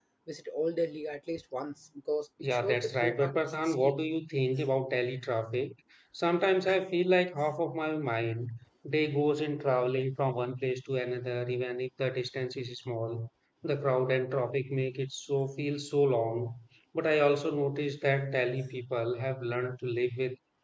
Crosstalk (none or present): present